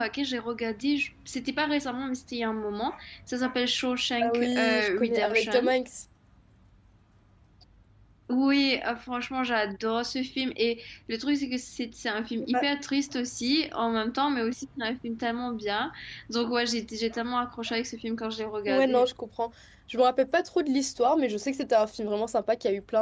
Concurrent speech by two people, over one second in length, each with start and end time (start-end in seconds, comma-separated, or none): 4.2-5.7